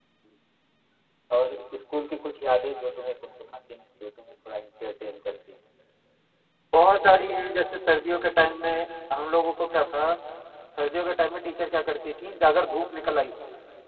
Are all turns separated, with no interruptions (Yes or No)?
Yes